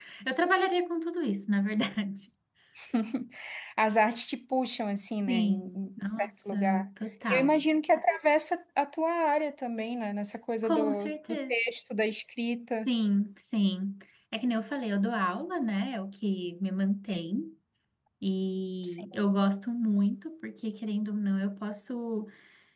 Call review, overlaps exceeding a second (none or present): present